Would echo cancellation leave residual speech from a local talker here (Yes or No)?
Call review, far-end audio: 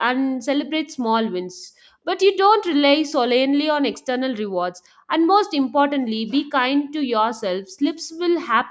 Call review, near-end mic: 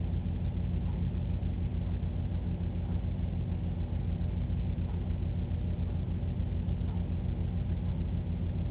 No